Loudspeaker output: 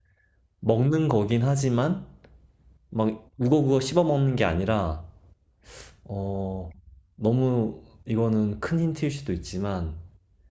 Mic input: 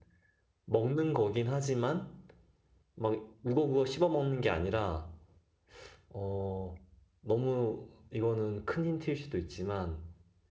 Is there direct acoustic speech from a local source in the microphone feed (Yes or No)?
No